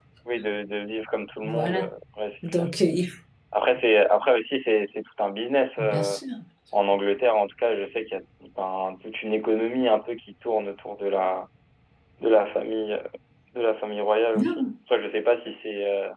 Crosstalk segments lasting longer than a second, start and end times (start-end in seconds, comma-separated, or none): none